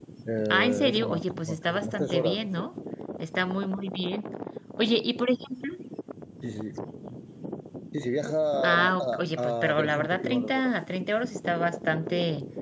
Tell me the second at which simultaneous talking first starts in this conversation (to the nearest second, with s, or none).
1 s